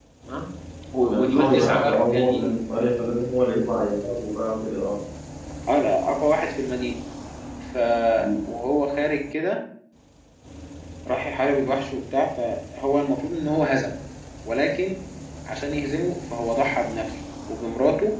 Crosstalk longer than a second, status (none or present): present